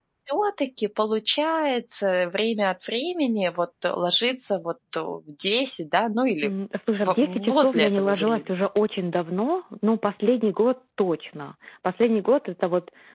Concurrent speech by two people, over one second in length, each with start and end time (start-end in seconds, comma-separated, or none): 7.0-8.4